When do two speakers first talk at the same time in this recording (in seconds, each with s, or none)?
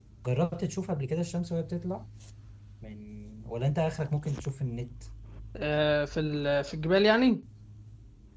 none